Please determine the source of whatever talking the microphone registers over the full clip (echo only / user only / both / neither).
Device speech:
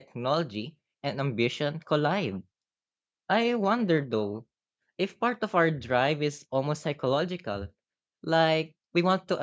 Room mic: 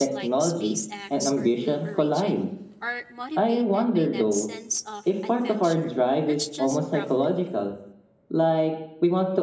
both